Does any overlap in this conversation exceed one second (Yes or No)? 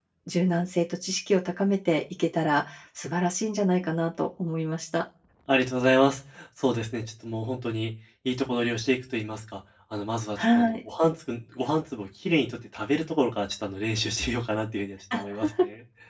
No